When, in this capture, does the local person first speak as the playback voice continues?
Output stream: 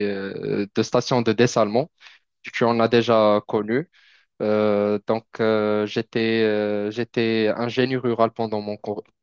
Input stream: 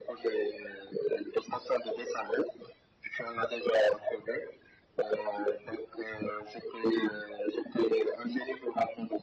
none

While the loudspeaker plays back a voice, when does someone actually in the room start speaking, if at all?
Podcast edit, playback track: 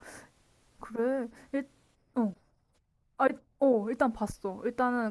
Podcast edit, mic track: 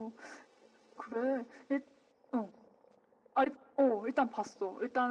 none

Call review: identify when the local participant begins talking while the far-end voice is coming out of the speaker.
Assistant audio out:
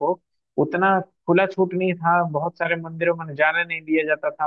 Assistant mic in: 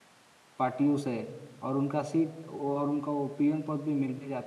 0.6 s

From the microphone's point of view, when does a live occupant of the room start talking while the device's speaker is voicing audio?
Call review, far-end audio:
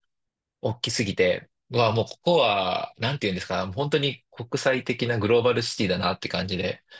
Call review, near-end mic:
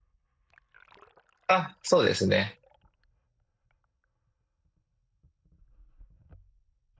1.5 s

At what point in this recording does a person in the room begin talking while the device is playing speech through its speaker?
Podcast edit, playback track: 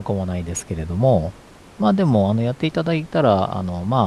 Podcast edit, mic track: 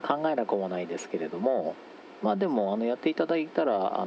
none

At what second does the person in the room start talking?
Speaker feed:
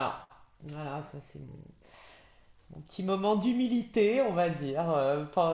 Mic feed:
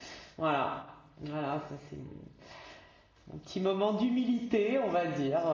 none

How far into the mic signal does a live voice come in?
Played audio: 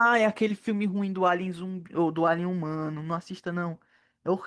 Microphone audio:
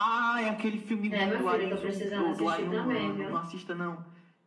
1.1 s

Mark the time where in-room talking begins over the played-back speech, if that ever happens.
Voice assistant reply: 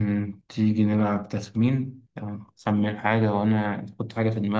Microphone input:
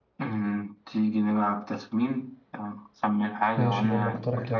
3.6 s

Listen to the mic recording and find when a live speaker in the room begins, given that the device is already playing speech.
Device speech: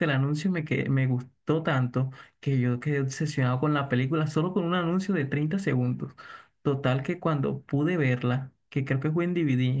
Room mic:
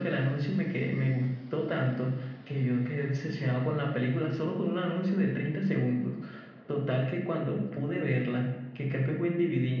none

